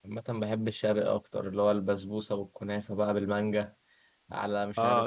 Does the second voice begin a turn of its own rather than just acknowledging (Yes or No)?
Yes